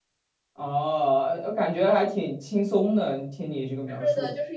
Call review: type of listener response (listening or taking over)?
taking over